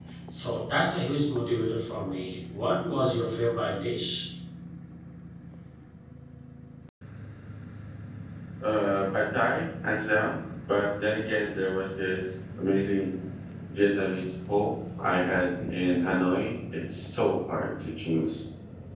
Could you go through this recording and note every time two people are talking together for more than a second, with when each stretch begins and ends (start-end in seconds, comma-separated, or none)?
none